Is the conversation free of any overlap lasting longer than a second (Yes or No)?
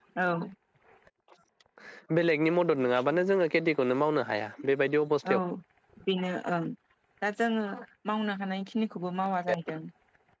Yes